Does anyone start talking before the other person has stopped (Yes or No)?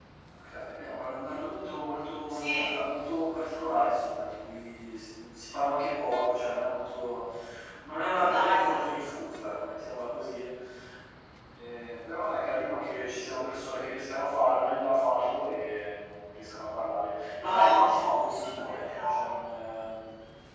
Yes